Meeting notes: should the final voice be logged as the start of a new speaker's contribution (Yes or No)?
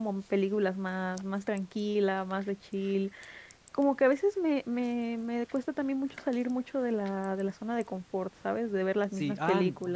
Yes